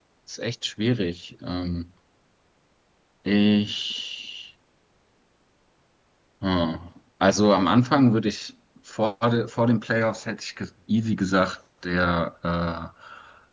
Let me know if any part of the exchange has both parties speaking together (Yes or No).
No